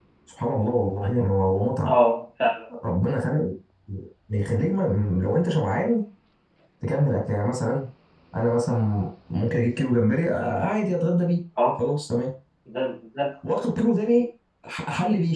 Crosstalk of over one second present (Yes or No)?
No